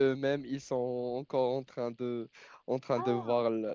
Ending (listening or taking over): listening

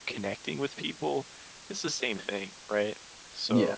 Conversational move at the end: listening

